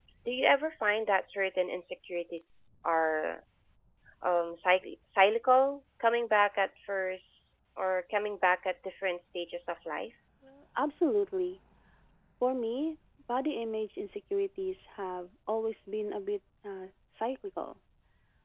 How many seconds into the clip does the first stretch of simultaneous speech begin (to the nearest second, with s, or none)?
none